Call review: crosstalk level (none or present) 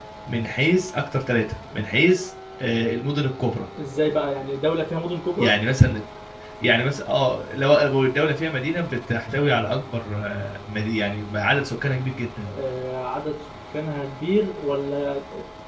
none